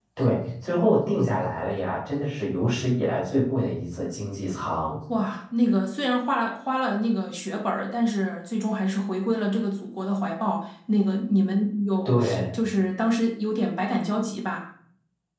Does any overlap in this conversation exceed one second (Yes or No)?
No